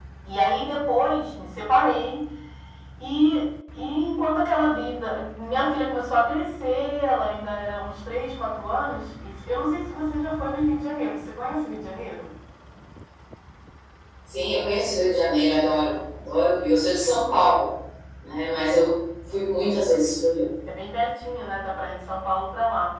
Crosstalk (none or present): none